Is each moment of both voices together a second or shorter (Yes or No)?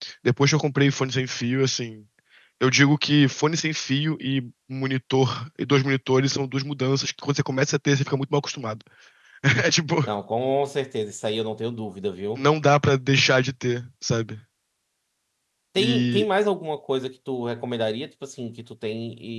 Yes